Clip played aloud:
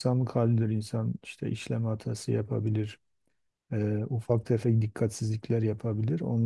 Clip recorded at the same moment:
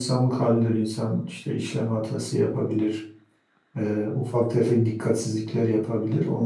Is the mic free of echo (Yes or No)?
No